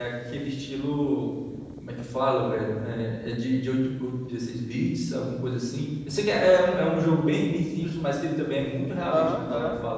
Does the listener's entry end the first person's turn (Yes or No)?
Yes